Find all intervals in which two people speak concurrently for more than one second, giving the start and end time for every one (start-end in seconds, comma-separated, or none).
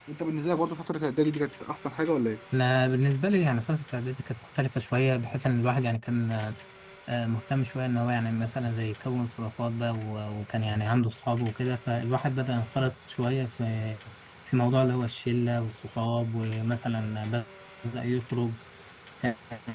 none